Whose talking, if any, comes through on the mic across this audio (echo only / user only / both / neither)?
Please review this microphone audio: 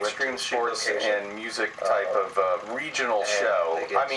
echo only